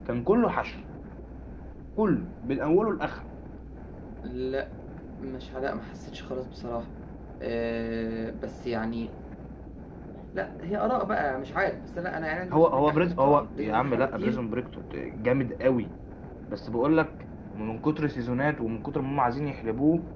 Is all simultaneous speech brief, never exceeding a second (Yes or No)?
No